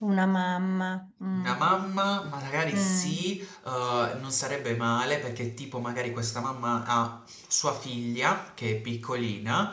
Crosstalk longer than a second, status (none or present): none